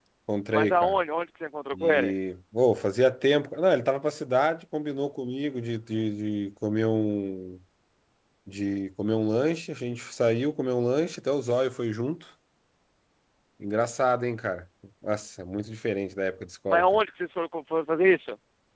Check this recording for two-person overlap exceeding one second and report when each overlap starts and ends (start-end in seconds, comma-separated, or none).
none